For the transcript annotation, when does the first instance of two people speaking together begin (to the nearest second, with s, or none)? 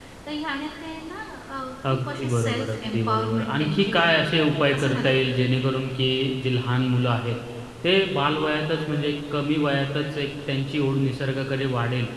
2 s